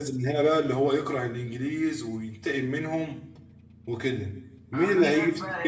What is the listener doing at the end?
taking over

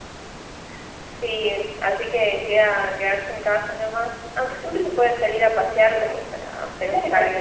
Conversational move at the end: taking over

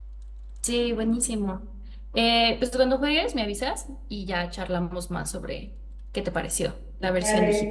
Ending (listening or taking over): taking over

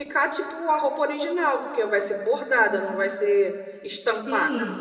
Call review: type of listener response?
taking over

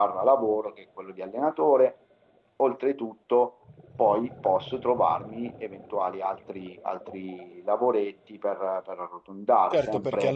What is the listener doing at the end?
taking over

